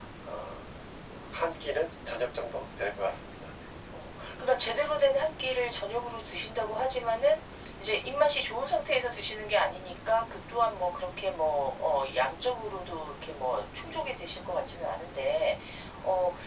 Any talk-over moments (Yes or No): No